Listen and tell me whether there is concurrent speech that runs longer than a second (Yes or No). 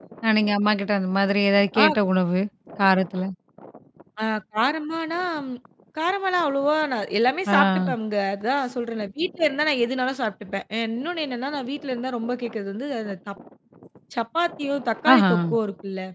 No